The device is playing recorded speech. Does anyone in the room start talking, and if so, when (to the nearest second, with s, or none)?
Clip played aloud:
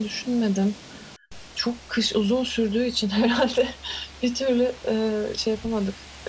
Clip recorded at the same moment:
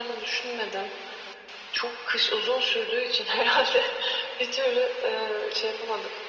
none